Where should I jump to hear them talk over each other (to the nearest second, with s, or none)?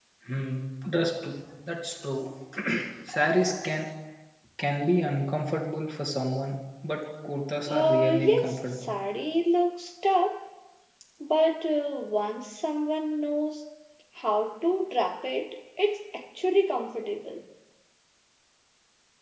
8 s